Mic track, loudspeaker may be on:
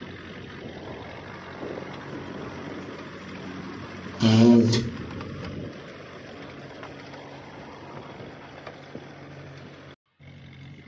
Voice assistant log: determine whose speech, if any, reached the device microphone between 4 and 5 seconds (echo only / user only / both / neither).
user only